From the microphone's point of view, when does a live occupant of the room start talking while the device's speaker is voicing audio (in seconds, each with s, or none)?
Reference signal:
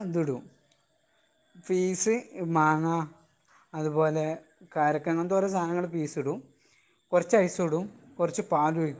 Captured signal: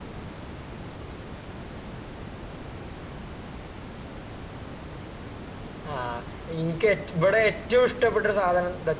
5.9 s